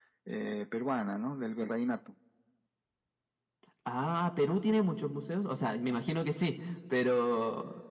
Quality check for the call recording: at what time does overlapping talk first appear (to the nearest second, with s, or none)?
none